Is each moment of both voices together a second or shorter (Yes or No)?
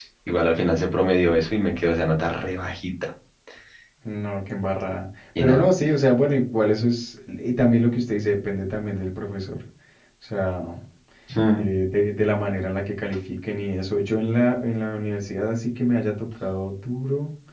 Yes